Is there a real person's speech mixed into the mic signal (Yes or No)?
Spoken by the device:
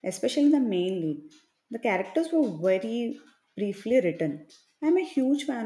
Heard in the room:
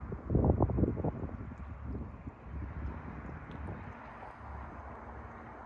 No